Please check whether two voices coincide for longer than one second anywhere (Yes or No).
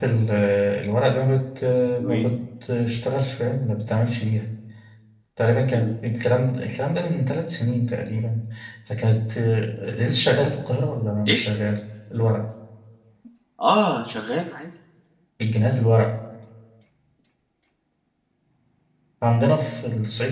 No